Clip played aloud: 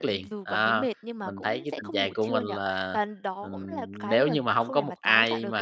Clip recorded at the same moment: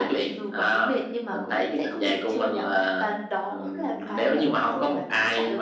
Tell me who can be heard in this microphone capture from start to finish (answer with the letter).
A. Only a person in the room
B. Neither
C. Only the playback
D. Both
C